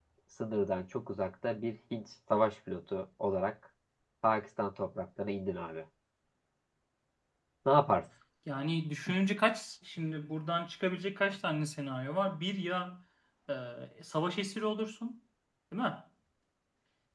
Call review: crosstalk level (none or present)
none